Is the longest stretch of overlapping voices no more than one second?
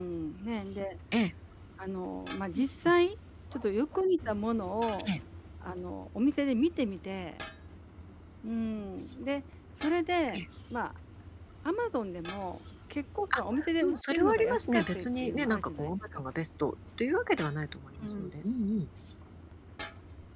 No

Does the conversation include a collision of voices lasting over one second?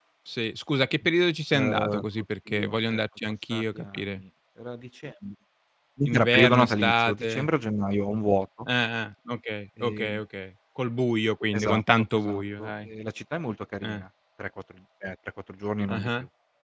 Yes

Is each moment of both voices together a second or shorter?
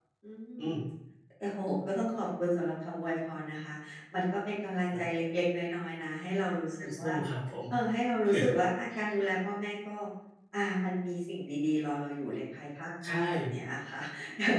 Yes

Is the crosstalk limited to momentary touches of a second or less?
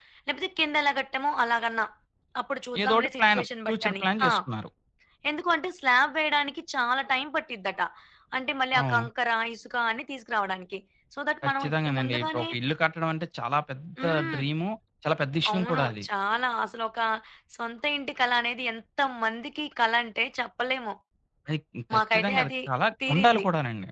No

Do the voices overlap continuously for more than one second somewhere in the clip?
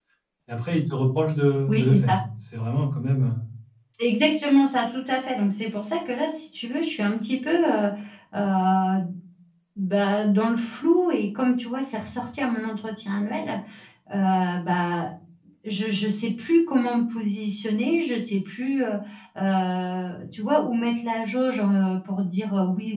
No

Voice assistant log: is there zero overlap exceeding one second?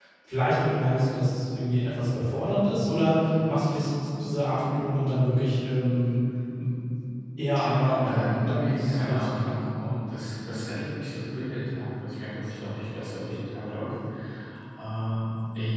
No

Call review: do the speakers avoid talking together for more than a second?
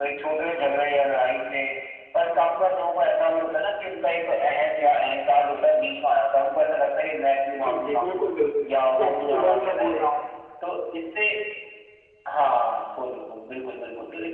No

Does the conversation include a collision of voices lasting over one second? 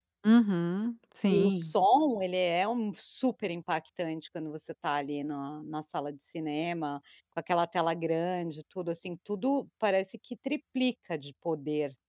No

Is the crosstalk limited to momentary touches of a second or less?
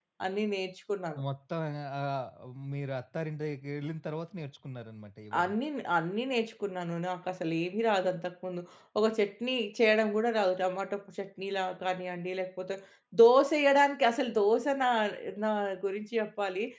Yes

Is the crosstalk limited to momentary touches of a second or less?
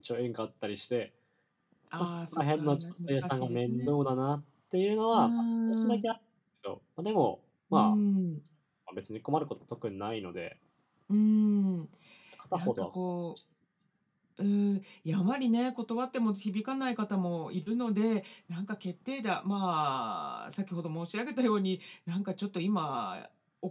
No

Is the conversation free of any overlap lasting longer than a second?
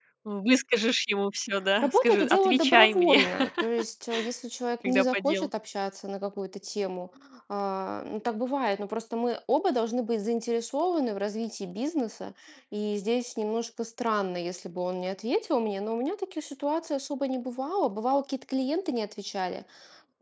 No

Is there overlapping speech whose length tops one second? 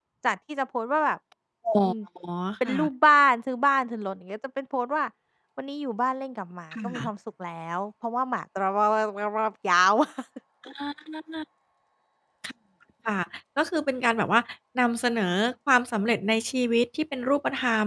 No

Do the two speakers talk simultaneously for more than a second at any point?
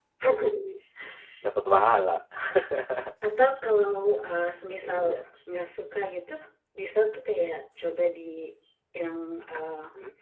No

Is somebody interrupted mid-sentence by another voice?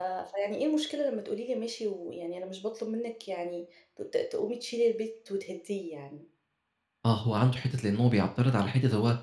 No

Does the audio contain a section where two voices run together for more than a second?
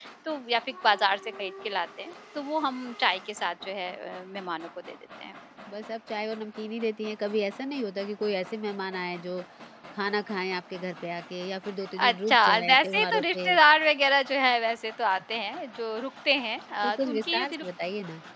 Yes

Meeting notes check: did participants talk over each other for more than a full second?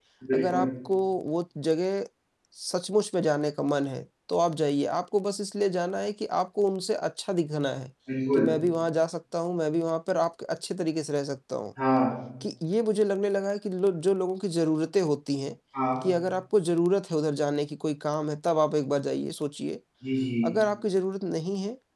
No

